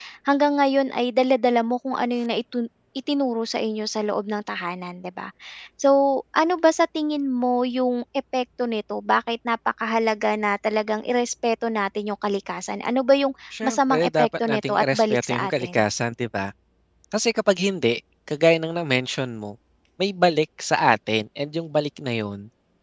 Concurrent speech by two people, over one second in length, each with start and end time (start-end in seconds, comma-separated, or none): 13.6-15.8